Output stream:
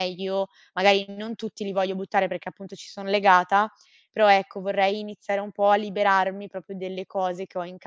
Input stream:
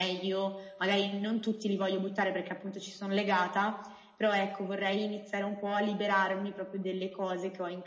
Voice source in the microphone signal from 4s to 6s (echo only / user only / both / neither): echo only